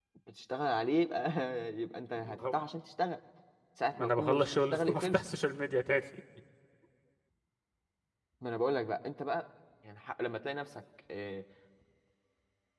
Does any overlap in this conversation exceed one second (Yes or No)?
Yes